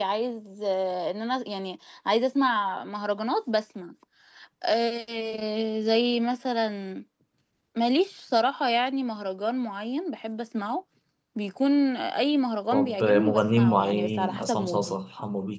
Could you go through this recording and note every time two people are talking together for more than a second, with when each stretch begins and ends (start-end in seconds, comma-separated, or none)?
12.7-15.0